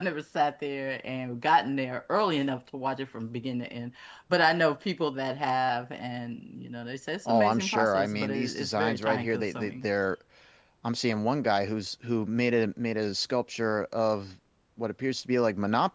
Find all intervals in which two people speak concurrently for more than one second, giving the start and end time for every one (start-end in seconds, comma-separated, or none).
7.2-9.8